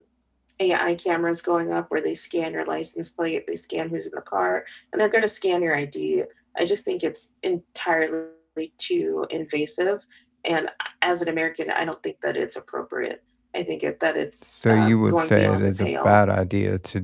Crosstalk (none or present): present